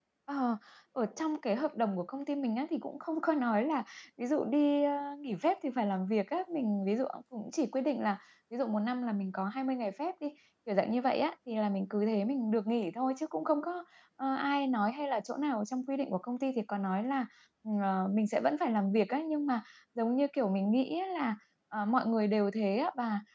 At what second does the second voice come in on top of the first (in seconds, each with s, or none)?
none